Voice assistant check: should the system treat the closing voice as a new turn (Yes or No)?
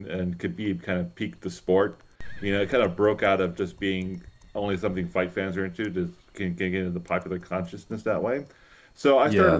No